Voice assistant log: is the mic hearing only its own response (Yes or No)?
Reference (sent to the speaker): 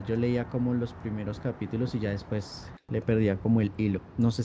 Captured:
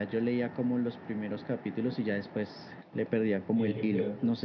No